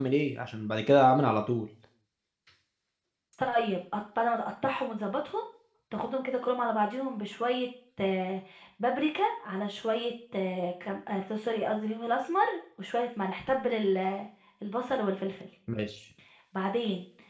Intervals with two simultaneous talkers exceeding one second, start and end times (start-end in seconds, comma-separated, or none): none